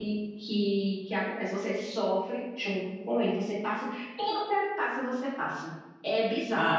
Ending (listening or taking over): taking over